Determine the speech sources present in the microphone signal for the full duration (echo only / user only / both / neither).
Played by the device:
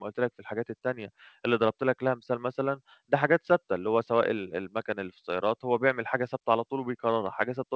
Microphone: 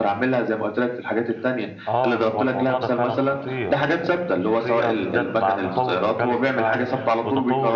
both